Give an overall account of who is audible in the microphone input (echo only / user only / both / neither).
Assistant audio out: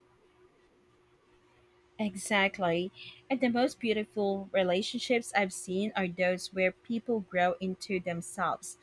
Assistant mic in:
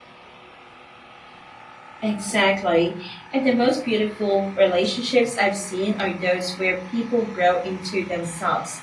echo only